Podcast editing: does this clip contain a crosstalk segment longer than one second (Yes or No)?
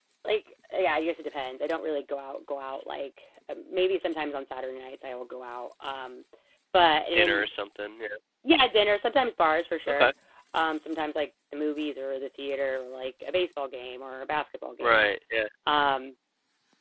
No